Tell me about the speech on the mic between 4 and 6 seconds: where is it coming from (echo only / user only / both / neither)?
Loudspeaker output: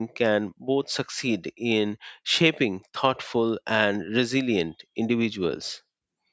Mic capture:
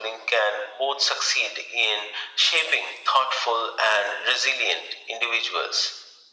echo only